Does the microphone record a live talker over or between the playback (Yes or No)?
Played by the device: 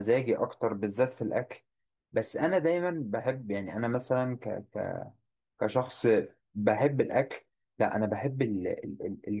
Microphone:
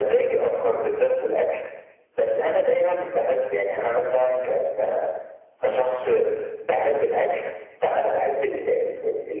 No